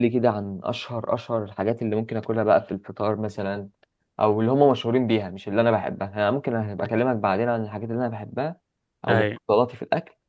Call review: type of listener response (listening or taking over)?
listening